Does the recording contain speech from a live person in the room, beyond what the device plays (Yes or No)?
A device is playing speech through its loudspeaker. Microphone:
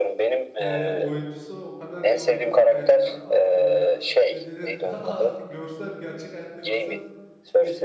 Yes